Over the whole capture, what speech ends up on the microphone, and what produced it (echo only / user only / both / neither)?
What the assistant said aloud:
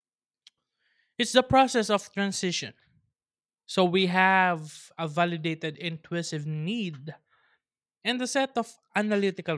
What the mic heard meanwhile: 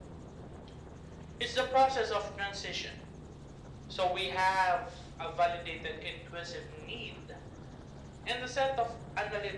echo only